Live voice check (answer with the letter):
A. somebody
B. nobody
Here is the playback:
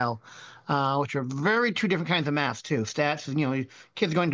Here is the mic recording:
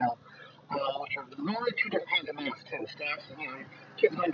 B